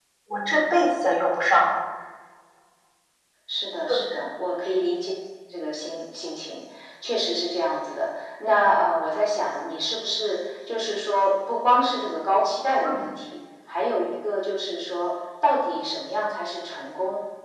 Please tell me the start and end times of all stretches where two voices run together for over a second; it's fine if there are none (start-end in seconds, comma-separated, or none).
none